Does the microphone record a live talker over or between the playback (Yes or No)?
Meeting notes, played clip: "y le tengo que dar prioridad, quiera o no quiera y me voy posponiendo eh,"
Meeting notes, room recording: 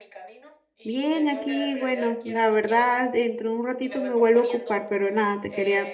Yes